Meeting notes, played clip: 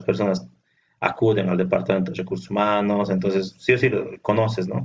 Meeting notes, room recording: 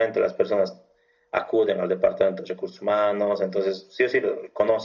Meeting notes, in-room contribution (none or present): none